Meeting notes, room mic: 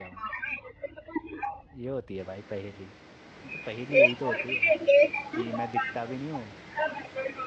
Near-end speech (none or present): present